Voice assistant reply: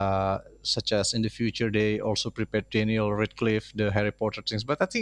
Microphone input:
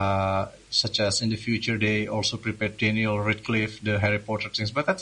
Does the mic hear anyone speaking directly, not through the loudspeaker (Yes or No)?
No